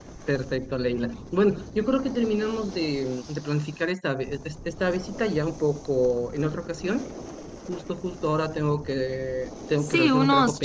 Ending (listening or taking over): taking over